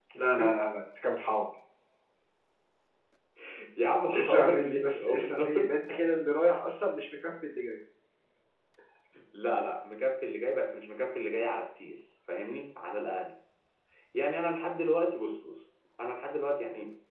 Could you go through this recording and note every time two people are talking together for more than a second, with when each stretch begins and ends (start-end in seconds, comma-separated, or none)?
4.2-5.7